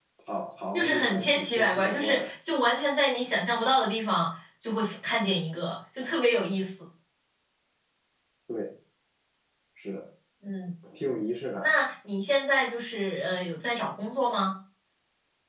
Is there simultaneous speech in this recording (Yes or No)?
Yes